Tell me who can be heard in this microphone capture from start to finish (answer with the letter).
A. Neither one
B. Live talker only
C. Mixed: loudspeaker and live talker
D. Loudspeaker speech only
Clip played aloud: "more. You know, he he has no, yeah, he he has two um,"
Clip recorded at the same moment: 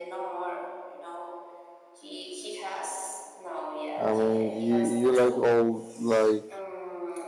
C